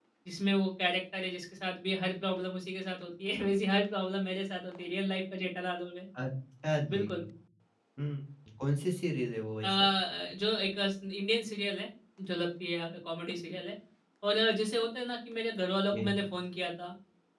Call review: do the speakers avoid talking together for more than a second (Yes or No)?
Yes